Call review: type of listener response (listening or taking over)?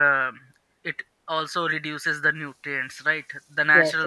taking over